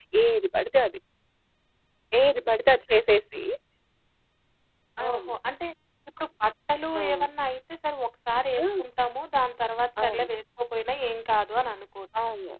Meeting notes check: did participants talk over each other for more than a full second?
No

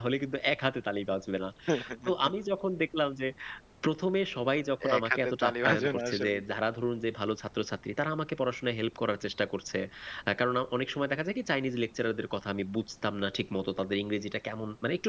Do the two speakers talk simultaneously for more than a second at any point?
Yes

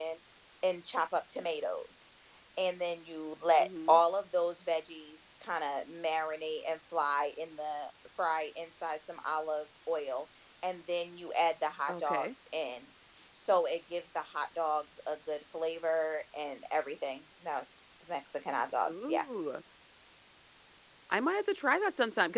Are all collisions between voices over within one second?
Yes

